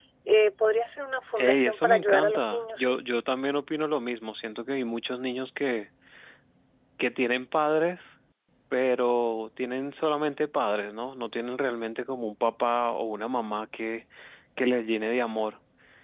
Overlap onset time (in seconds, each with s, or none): 1.4 s